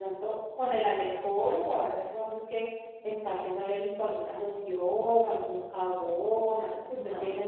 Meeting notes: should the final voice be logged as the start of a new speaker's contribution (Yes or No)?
Yes